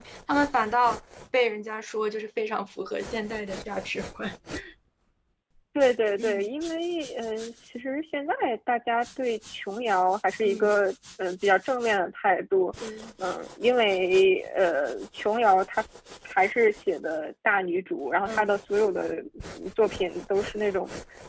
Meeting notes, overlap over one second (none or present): none